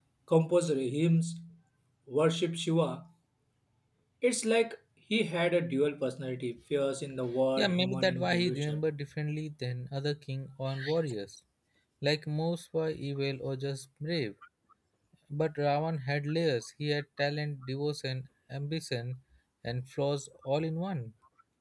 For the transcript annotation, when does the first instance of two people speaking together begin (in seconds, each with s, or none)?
7.6 s